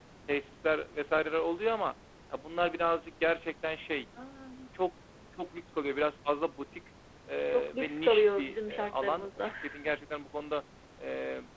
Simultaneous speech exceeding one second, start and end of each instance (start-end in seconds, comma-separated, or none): 7.5-9.5